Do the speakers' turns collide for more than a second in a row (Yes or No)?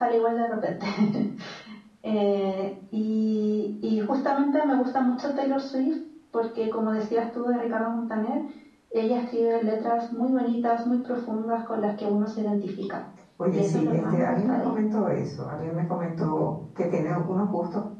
Yes